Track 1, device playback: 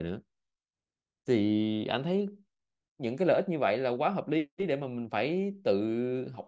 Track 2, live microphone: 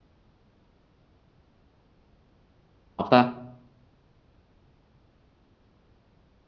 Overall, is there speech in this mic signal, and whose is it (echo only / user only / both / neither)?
user only